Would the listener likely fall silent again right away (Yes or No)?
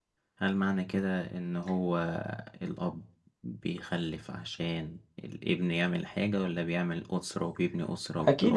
No